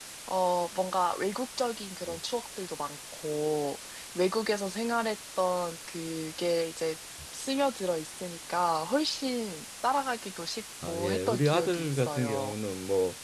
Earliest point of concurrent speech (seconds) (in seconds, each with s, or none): 10.8 s